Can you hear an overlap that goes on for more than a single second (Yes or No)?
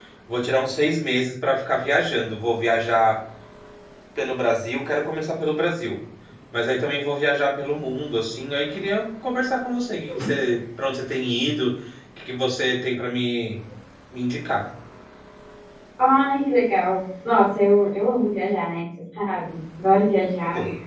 No